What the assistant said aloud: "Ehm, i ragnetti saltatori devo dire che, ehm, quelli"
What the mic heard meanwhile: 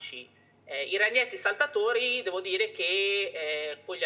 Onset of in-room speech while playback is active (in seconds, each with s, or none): none